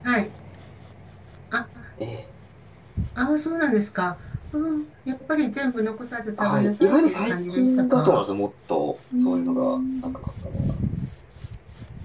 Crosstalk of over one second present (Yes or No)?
Yes